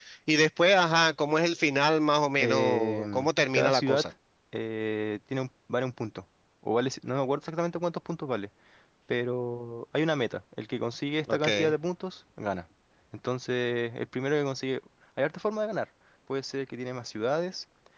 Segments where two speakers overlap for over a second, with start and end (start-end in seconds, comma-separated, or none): 2.4-4.0